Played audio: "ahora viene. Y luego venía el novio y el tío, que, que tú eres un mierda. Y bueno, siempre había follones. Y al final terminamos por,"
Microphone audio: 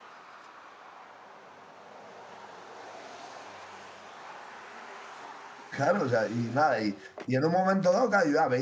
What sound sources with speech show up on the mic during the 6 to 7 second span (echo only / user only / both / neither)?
user only